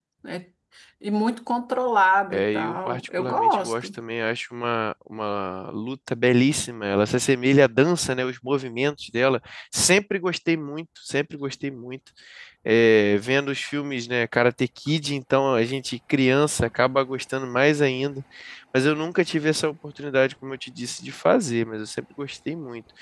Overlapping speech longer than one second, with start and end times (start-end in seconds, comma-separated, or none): 2.3-3.9